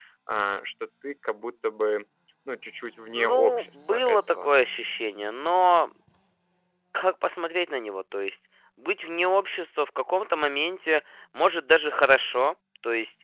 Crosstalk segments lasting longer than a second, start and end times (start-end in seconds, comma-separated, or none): 3.1-4.5